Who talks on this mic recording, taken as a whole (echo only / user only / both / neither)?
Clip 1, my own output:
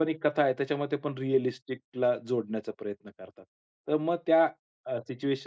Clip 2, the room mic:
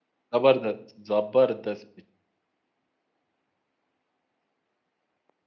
user only